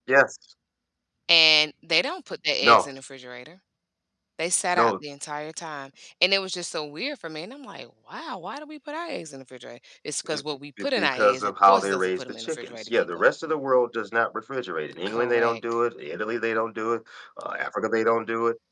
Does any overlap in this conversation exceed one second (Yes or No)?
Yes